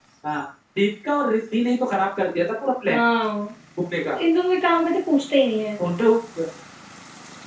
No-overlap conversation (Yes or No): Yes